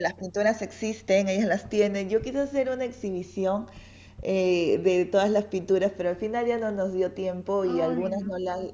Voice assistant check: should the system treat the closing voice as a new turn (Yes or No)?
No